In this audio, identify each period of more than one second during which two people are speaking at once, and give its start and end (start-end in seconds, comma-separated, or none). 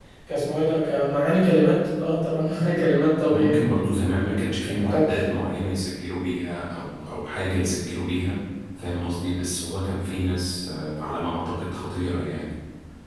none